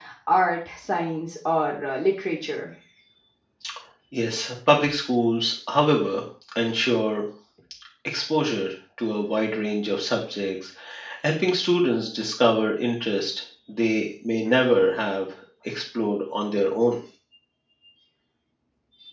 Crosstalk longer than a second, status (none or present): none